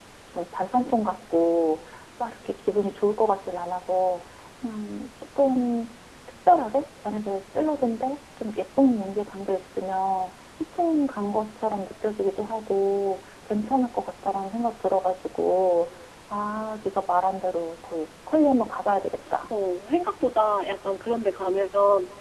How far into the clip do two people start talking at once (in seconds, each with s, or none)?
none